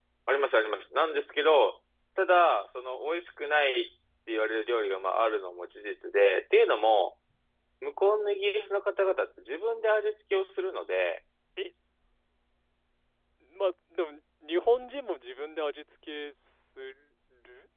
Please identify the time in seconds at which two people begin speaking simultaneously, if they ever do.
none

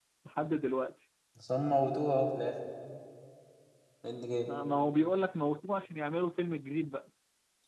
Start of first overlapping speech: none

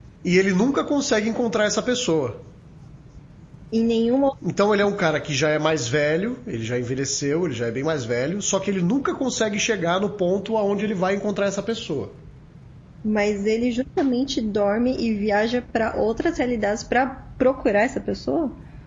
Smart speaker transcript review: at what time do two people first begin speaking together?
none

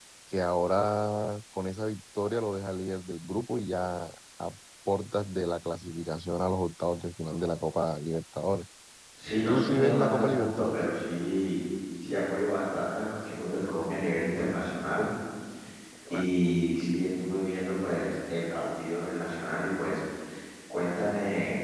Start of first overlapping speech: 9 s

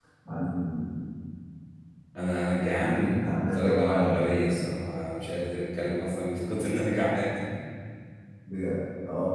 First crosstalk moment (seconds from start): 3 s

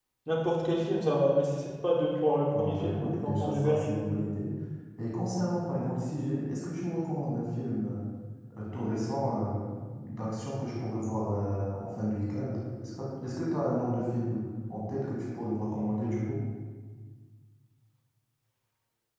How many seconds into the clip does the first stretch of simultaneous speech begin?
3 s

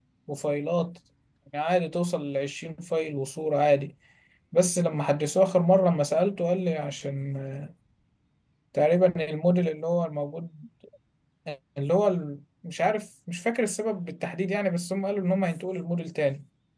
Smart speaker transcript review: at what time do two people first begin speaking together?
none

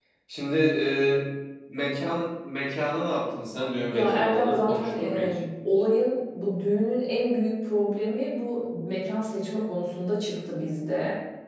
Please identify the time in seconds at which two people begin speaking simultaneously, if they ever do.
4 s

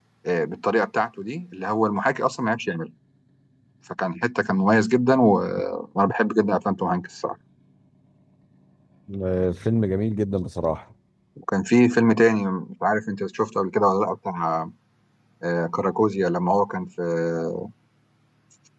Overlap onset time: none

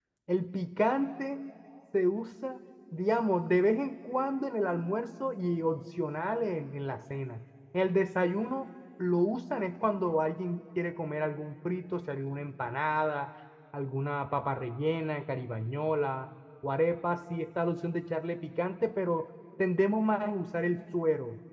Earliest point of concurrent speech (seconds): none

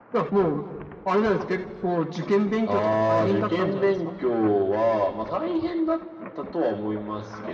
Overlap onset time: 3 s

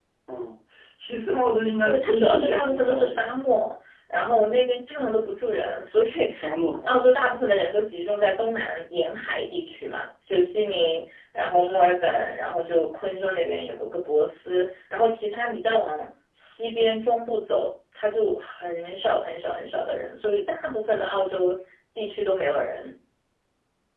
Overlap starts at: 2 s

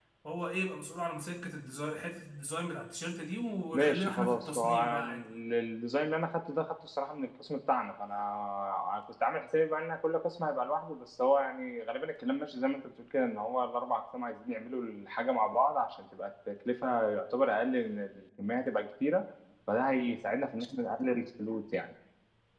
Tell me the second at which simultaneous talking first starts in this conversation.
4 s

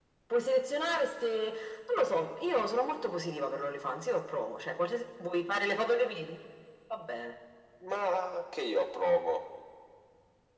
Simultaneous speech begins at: none

